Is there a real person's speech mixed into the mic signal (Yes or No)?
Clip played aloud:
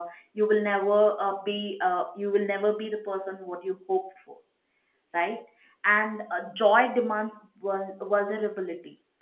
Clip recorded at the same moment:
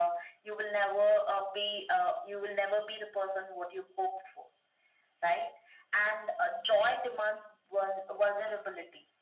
No